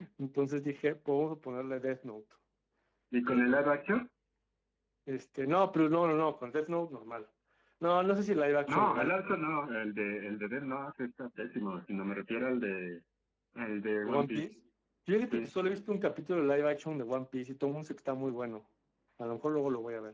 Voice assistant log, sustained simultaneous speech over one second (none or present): none